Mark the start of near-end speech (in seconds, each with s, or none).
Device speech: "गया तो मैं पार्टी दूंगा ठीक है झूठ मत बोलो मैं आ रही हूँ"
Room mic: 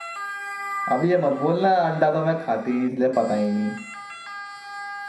0.9 s